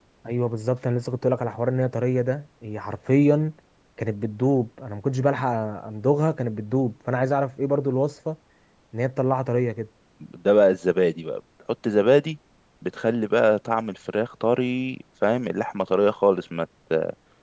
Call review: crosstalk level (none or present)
none